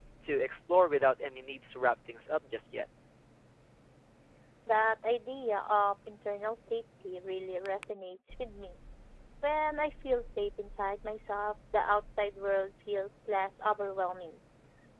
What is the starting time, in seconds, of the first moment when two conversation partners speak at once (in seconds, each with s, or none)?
none